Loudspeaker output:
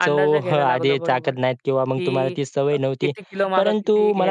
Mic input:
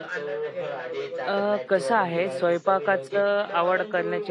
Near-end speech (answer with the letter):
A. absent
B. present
B